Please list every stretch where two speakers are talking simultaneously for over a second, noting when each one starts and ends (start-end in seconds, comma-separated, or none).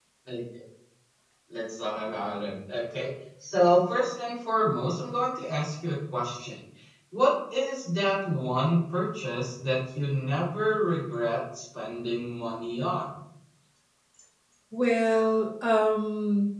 none